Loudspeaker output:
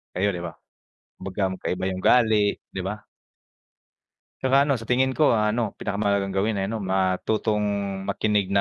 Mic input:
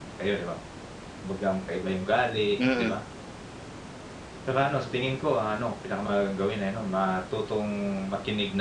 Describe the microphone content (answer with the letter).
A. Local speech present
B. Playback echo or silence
A